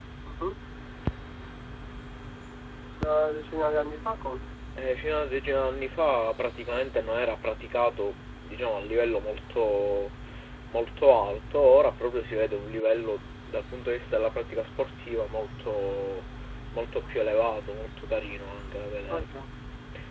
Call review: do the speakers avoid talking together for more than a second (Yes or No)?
Yes